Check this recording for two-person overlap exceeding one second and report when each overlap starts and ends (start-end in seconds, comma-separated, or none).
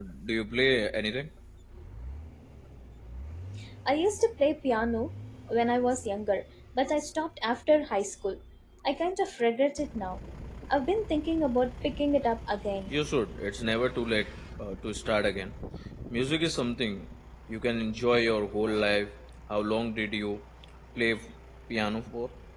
none